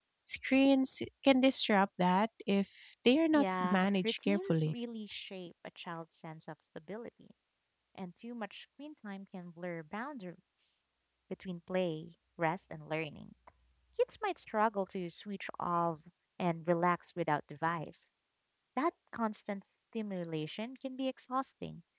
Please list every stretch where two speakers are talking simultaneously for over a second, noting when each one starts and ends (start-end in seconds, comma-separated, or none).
3.4-4.7